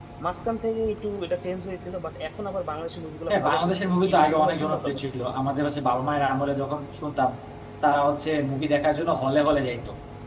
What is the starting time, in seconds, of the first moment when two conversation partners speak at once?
3.3 s

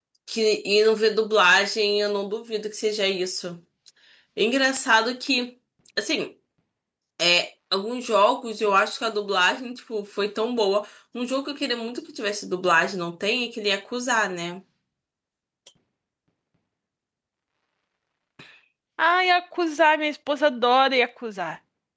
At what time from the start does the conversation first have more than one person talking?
none

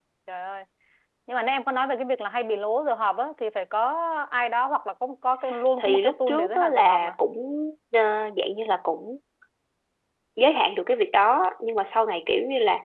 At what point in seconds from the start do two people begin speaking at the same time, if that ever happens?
5.8 s

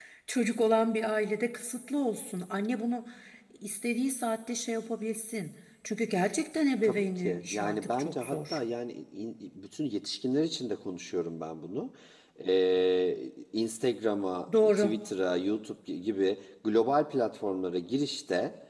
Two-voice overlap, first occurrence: 6.8 s

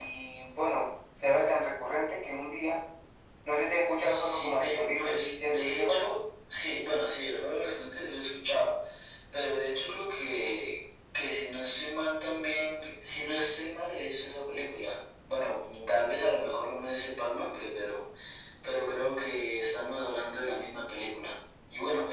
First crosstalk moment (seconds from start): 4.0 s

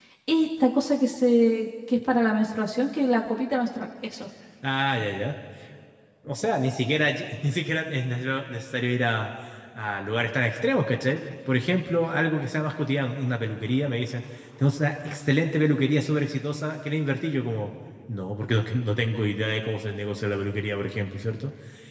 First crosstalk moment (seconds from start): none

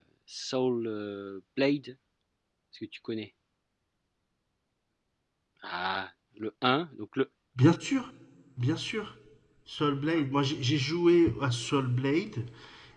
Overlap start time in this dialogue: none

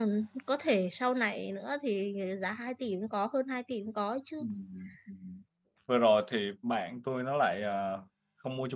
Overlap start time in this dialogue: none

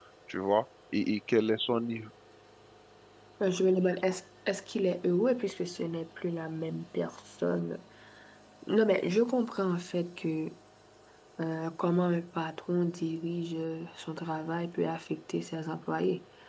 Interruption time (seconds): none

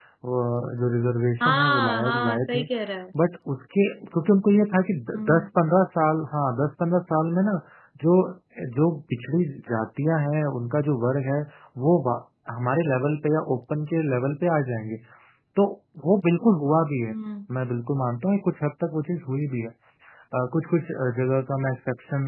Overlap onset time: 1.4 s

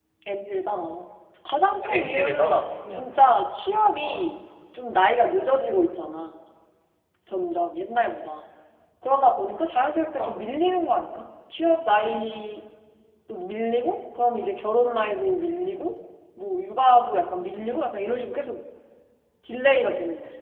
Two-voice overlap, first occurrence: 1.8 s

